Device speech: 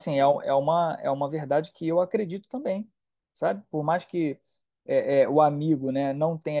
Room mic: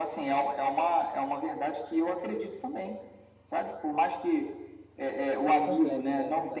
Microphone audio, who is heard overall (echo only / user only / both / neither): both